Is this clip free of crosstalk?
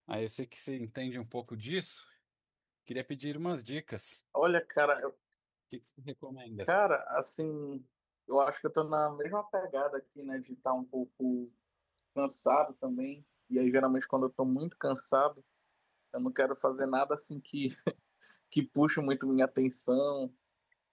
Yes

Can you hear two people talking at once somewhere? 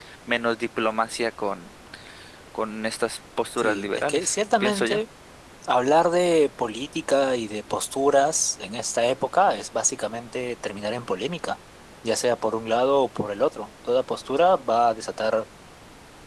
Yes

